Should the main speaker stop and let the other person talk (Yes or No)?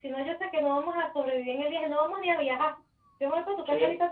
No